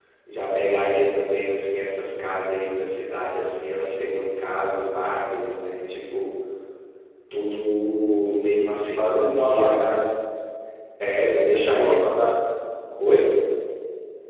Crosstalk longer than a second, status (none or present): present